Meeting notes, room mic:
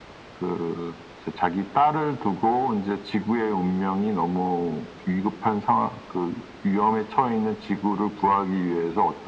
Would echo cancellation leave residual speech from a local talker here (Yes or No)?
No